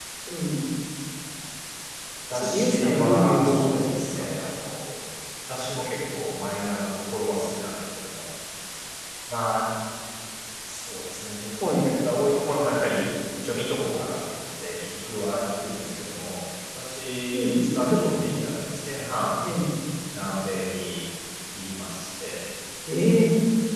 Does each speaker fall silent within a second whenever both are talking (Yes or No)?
No